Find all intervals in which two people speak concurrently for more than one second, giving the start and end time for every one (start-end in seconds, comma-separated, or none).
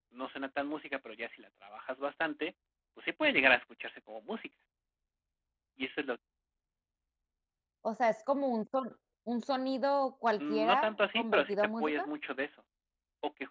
10.4-12.1